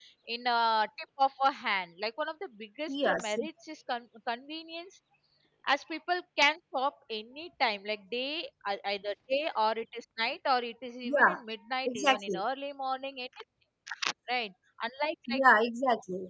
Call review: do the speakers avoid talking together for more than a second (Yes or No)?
Yes